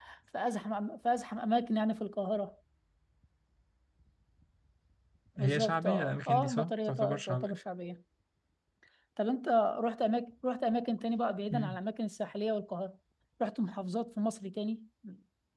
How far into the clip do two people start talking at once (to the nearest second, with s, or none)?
5 s